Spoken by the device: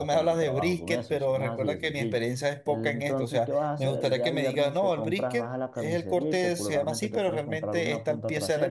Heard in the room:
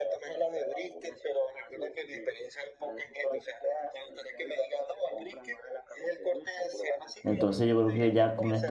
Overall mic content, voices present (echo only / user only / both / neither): both